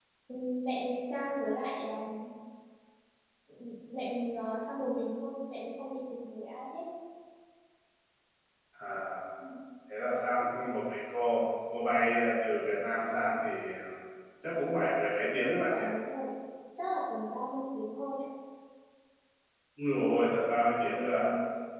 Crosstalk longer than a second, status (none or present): none